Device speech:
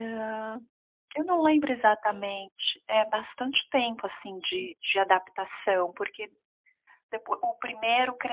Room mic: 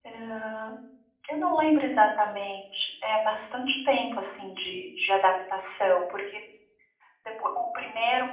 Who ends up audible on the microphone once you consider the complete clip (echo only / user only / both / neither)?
echo only